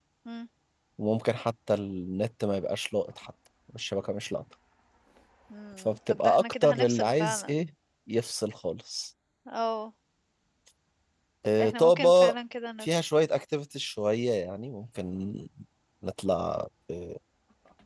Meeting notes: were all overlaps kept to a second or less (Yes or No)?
No